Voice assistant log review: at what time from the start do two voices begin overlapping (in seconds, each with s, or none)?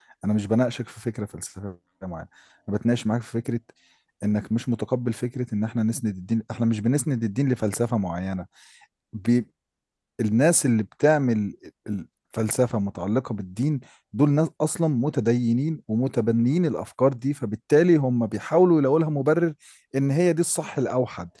none